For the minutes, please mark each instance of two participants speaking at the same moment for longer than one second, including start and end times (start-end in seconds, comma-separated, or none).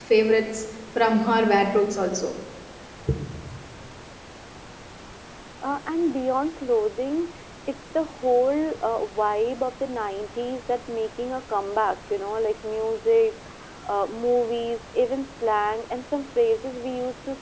none